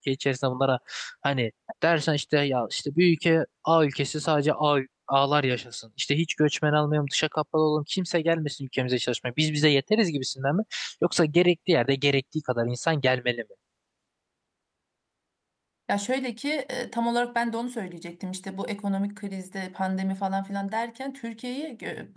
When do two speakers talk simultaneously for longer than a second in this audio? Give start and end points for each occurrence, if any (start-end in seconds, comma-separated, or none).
none